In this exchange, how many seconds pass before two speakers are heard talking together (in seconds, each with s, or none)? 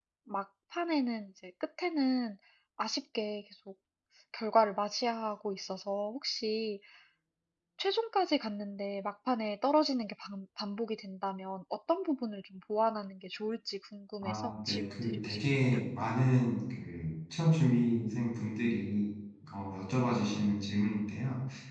14.2 s